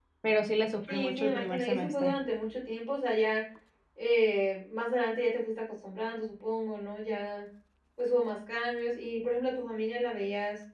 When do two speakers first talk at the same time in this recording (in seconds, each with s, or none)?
0.9 s